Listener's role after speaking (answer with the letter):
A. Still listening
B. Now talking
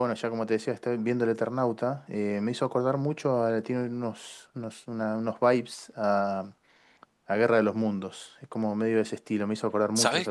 B